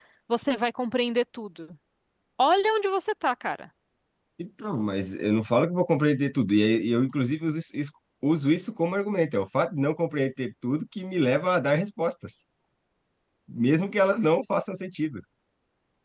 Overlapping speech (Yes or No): No